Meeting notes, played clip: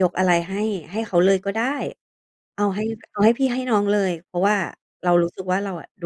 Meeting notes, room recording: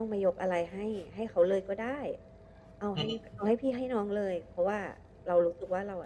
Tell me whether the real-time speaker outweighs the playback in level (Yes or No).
No